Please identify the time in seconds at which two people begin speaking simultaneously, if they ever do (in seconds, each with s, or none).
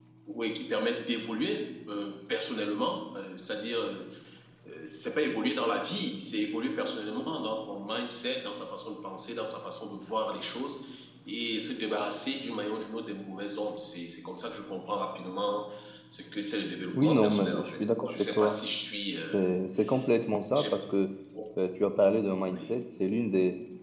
16.9 s